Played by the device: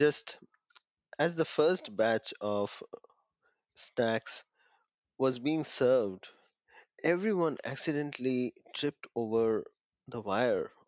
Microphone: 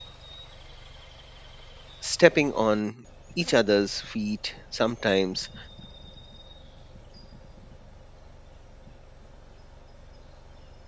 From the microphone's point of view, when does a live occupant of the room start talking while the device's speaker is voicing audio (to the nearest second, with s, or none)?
2 s